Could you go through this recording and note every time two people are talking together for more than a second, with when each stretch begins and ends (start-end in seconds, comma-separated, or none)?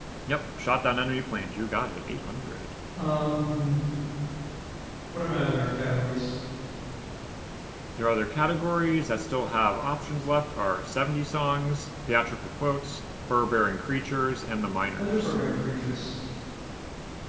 none